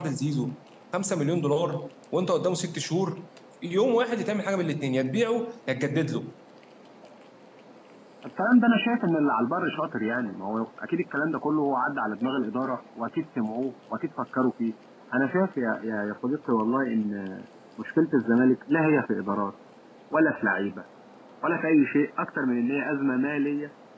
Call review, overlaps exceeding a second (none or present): none